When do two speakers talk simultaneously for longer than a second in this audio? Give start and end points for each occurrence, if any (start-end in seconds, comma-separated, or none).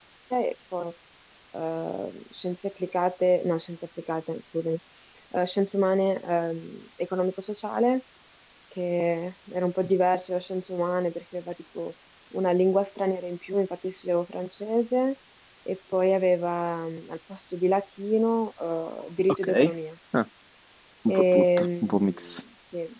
21.1-22.4